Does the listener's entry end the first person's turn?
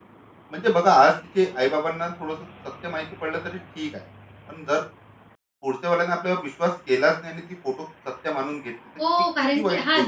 Yes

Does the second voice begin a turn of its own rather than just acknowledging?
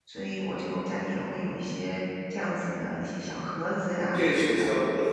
Yes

